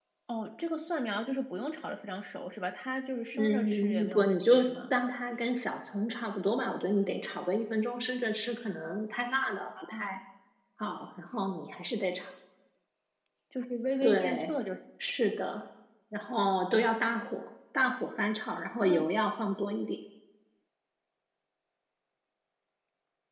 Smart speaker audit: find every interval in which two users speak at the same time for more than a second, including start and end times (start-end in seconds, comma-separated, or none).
3.4-4.7